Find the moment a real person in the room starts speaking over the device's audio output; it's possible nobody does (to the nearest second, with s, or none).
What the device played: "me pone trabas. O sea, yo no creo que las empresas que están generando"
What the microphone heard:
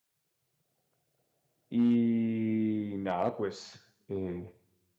2 s